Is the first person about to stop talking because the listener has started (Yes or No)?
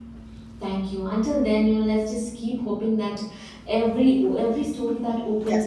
No